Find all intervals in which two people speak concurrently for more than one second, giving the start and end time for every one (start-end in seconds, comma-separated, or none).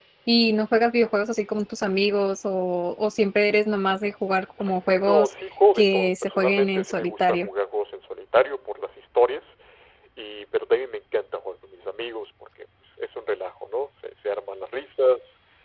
5.7-7.5